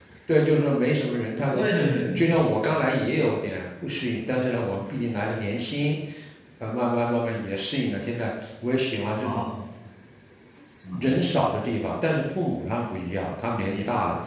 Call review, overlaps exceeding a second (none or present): none